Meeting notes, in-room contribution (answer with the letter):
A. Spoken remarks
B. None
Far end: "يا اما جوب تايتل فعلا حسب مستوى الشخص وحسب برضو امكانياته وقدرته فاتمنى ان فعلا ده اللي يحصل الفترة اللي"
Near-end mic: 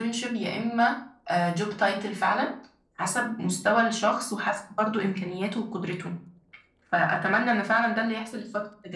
B